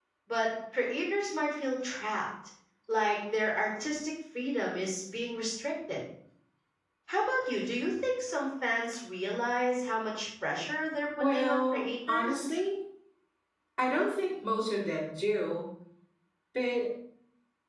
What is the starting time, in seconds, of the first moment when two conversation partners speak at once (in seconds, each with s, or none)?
11.2 s